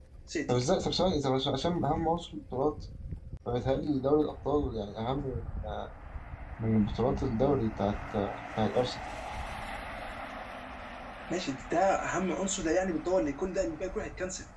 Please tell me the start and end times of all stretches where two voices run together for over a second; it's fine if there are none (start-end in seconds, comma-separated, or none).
none